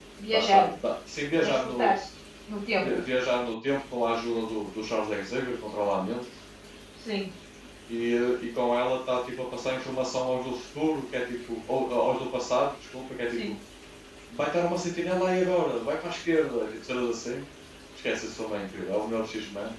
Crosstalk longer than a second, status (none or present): none